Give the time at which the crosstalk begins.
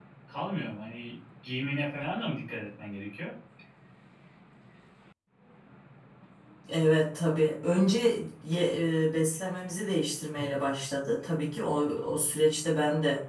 none

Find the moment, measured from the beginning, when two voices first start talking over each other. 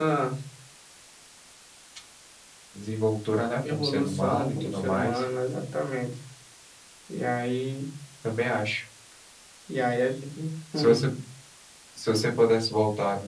4 s

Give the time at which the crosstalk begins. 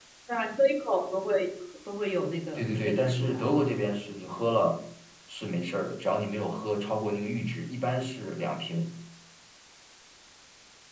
3 s

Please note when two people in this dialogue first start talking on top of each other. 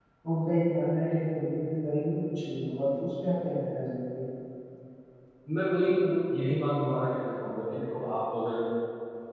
none

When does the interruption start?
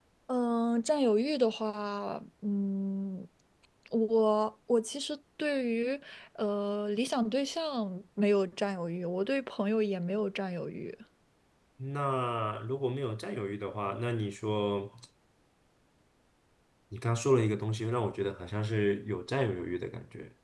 none

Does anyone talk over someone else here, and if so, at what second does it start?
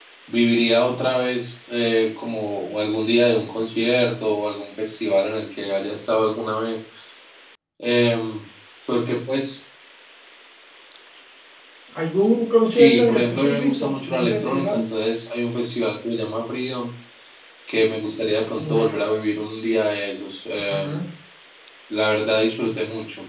13 s

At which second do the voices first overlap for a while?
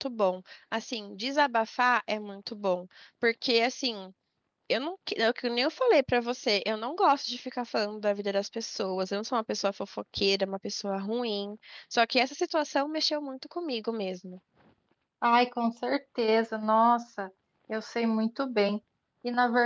none

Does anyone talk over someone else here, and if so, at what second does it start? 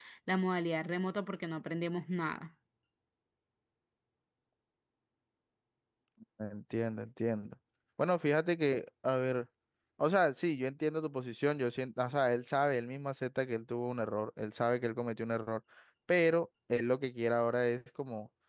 none

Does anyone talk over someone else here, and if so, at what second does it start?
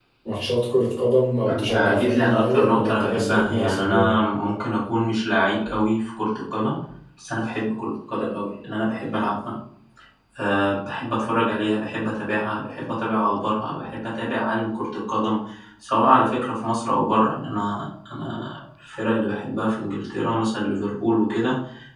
1 s

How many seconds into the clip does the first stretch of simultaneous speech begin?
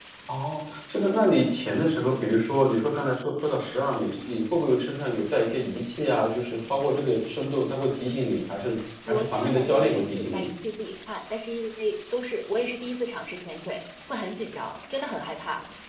9 s

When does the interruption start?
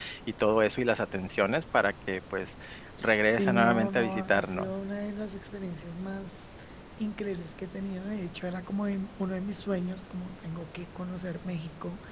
3 s

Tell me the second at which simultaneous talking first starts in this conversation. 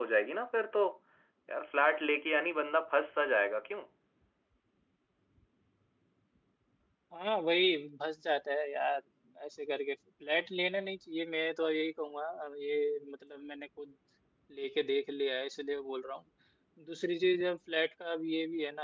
none

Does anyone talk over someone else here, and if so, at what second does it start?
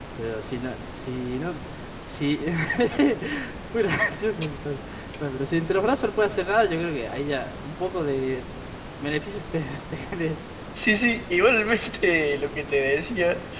none

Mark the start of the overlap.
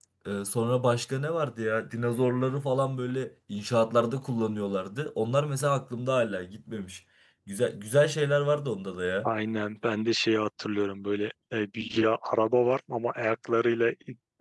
none

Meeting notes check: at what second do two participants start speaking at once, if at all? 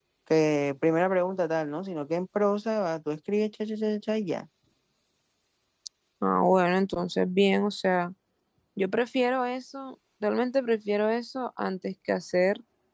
none

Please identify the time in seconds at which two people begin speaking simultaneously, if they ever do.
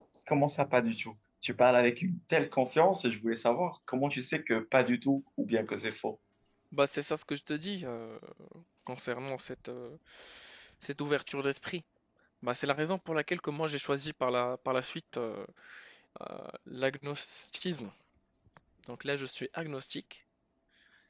none

